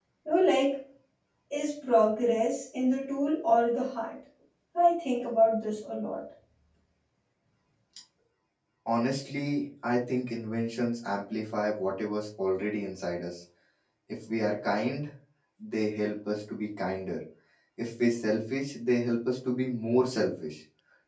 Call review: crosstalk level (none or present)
none